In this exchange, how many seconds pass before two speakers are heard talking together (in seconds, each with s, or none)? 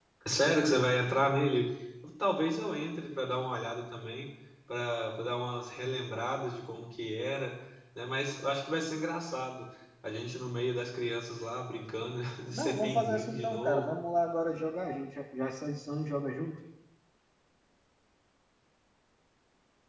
12.5 s